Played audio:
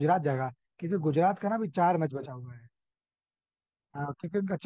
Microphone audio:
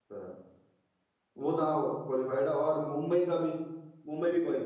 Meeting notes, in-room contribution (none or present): present